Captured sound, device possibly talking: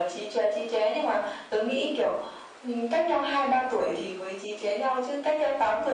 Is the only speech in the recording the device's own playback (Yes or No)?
Yes